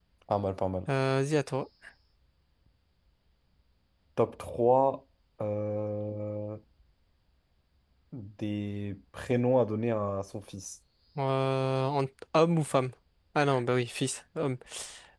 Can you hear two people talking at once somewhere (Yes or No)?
No